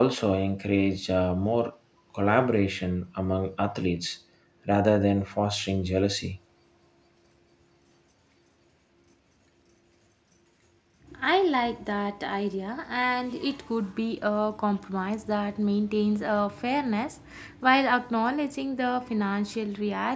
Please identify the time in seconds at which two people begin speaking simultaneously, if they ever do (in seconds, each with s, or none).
none